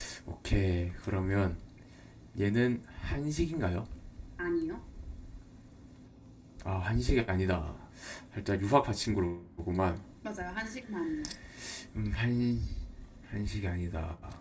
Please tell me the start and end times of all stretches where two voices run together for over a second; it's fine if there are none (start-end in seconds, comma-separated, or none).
none